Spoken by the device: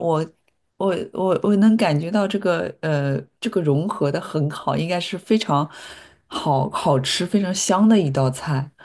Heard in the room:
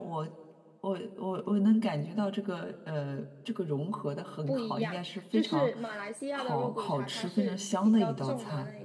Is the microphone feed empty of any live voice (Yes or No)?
No